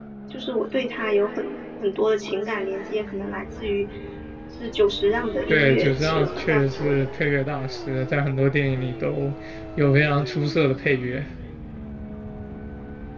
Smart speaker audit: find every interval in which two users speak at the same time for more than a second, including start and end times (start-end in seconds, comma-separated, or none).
5.5-7.1